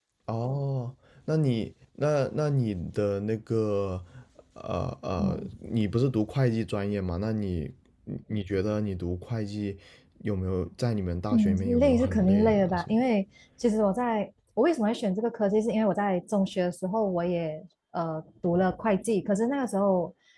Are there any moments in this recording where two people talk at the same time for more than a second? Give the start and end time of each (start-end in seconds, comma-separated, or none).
11.3-13.1